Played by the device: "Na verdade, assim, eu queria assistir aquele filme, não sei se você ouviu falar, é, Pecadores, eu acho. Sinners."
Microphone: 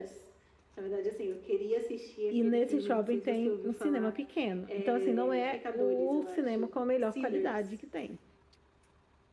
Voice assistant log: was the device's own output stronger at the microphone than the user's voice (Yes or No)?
No